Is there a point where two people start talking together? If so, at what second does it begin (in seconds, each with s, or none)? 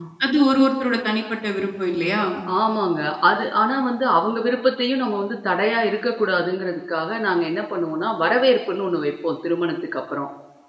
none